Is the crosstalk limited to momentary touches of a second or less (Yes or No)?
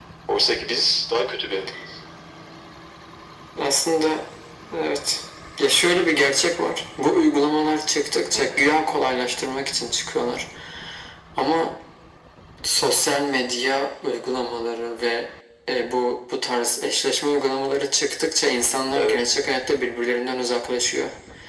Yes